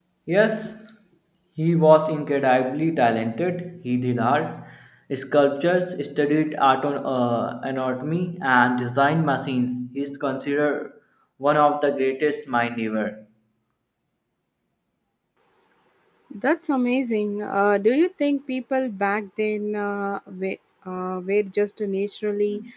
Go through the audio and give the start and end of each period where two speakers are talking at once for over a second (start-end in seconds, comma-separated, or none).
none